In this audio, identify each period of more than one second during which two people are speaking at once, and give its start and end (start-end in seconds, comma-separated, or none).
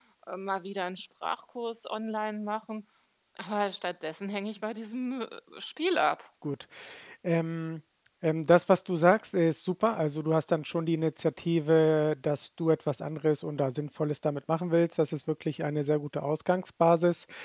none